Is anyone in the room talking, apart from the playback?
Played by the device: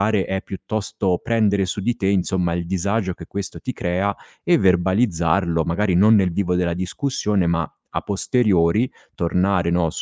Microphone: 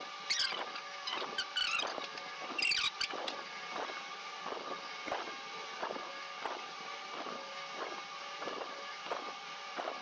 No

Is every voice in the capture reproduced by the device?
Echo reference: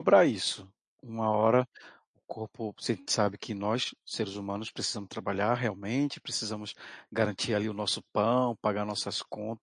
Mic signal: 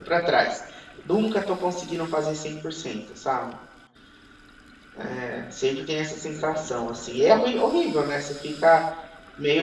No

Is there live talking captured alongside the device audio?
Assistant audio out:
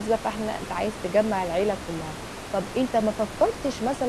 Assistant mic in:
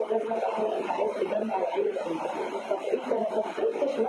No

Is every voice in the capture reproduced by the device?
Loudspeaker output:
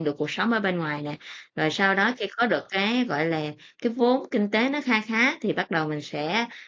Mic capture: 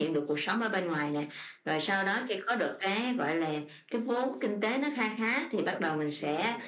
No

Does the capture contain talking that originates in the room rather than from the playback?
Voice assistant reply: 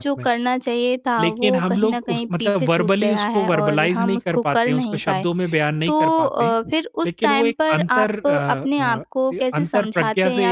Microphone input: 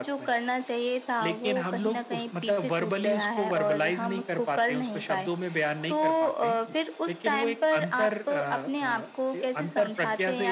No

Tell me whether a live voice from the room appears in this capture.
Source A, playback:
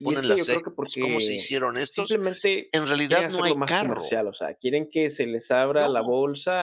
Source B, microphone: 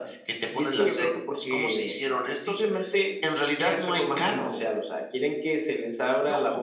No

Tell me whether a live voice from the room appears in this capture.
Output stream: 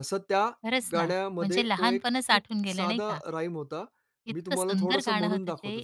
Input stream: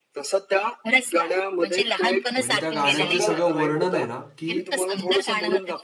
Yes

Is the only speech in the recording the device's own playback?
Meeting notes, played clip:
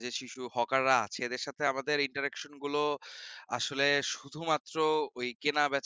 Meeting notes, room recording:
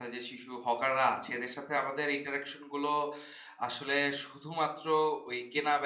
Yes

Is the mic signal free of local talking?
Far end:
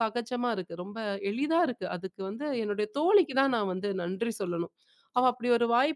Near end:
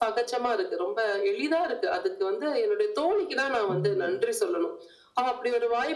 No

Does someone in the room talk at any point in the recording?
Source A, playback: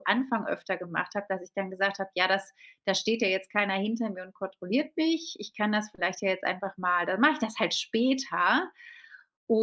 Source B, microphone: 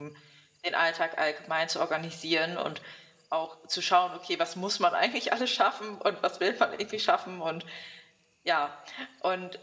Yes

